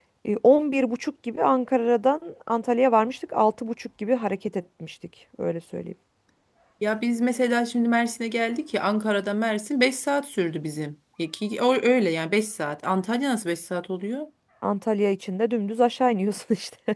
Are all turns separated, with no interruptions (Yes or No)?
Yes